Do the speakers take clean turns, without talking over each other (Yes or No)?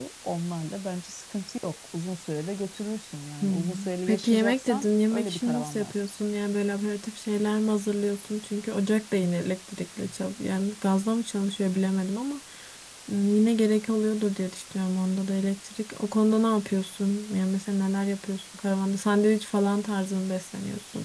No